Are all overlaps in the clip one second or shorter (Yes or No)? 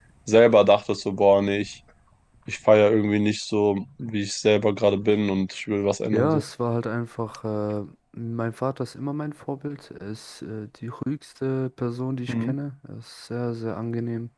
Yes